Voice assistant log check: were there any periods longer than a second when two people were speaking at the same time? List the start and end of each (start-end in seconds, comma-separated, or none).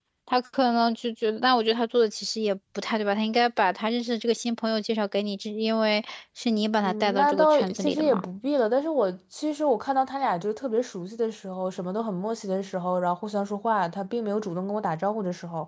6.8-8.2